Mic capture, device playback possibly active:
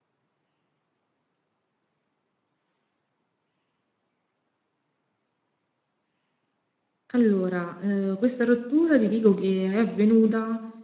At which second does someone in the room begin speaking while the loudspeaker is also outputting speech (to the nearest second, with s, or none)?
7 s